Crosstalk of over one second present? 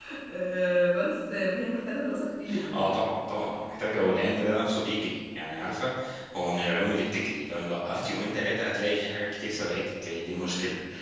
No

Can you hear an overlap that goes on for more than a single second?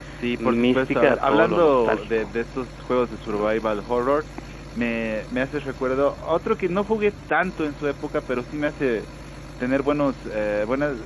Yes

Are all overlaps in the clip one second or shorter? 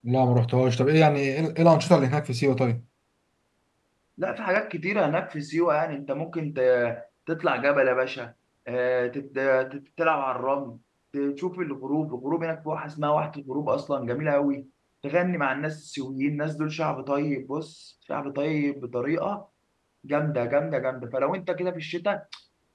Yes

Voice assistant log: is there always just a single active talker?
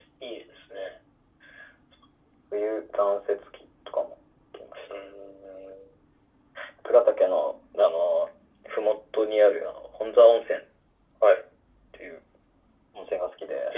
Yes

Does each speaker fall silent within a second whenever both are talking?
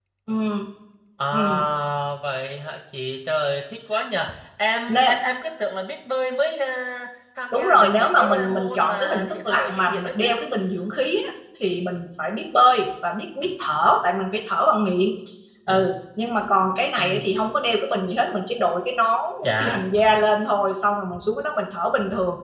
No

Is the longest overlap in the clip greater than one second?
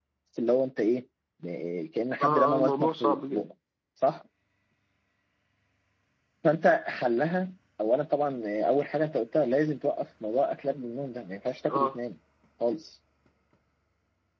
Yes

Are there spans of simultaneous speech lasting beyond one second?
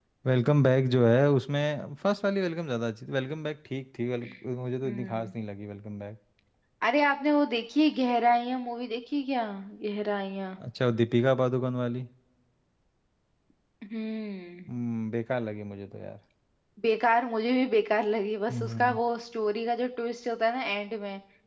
No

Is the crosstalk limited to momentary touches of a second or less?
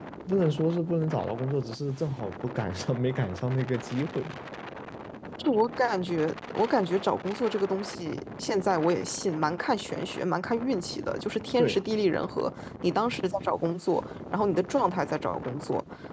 Yes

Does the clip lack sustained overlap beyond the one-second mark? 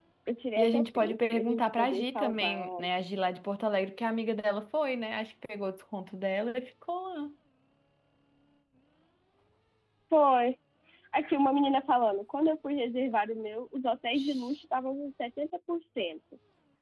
No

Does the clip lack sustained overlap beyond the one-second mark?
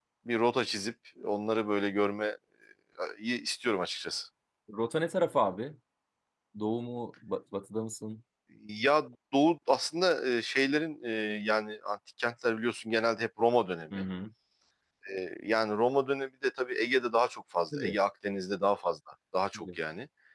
Yes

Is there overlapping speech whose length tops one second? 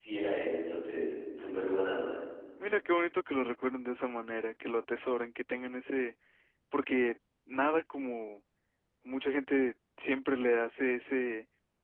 No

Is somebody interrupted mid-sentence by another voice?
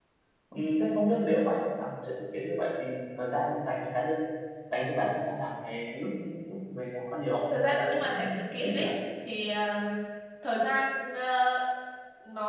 Yes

